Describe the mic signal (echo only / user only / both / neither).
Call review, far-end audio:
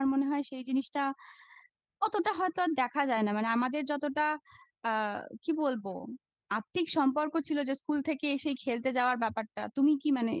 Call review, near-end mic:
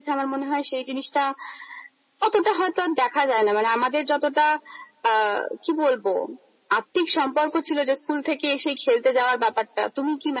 echo only